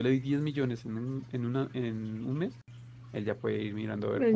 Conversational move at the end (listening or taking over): taking over